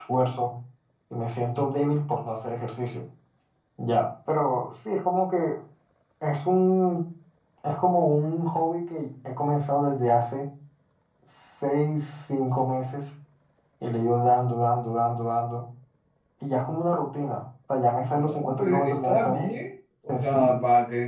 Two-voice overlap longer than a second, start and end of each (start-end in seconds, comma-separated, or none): 18.1-19.5